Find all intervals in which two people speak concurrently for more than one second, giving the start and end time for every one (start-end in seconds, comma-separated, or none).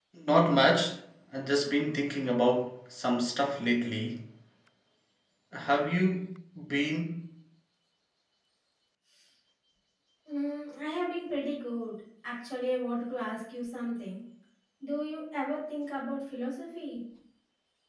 none